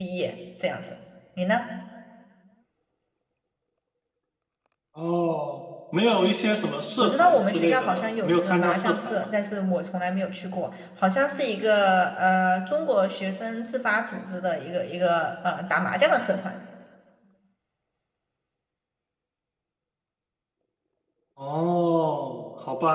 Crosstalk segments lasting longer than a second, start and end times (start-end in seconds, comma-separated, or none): 7.0-9.3